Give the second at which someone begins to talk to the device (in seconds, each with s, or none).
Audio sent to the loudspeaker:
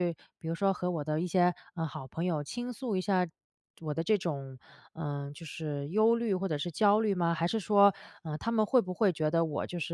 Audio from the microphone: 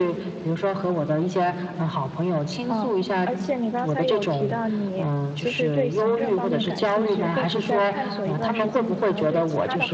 2.7 s